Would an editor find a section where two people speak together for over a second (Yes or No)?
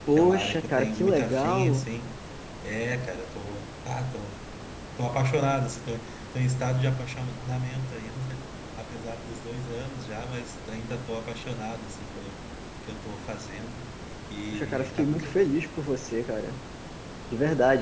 Yes